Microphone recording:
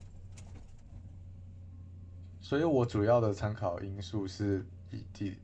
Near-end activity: present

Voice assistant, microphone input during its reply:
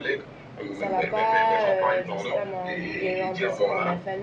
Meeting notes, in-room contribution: present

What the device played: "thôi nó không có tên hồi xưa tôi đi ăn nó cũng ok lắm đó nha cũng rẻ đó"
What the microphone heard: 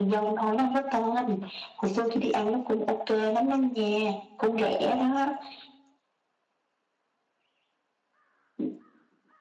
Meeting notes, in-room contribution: none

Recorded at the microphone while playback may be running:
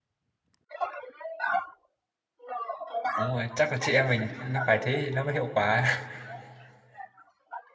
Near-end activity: present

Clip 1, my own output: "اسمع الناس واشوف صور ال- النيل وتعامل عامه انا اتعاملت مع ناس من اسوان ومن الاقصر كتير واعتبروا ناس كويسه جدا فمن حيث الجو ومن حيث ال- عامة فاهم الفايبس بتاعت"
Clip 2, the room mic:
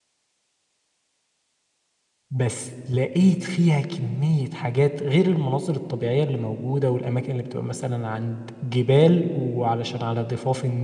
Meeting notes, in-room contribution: present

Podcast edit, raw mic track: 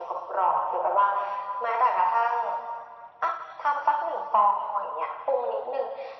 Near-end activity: none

